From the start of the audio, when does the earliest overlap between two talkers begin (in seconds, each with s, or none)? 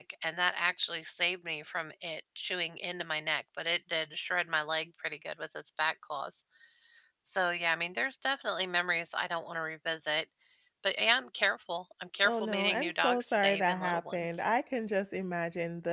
12.2 s